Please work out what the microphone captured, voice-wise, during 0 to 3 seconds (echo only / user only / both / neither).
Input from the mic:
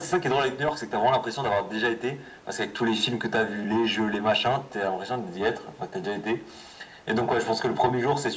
echo only